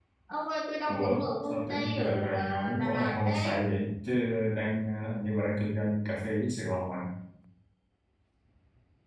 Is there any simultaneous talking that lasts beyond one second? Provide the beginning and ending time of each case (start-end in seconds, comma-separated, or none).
0.9-3.6